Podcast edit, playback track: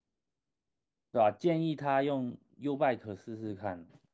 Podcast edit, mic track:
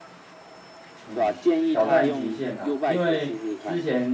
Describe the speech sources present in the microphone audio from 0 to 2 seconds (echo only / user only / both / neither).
both